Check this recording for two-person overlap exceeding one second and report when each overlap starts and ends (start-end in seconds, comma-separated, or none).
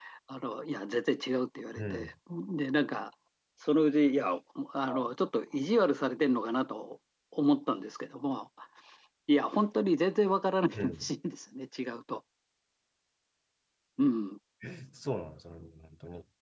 none